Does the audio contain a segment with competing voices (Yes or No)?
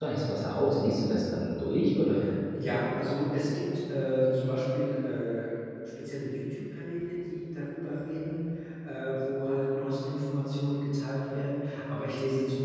No